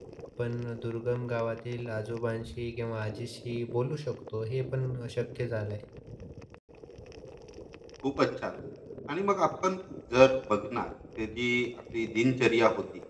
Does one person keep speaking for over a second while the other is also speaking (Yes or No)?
No